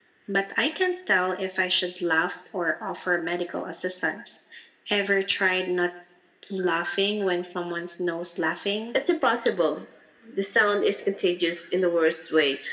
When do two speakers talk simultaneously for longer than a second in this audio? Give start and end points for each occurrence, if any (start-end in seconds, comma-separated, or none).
none